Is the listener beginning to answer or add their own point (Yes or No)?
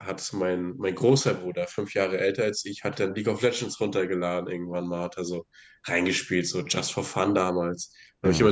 No